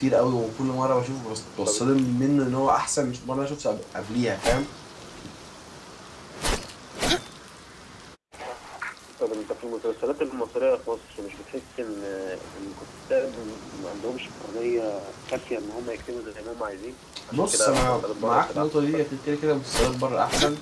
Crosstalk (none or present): present